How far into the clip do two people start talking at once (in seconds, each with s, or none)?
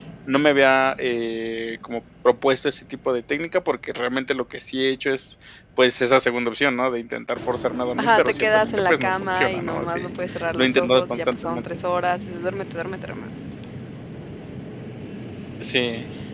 8.0 s